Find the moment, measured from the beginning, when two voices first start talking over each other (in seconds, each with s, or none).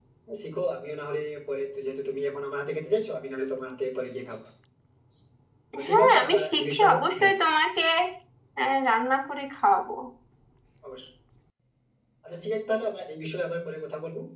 5.8 s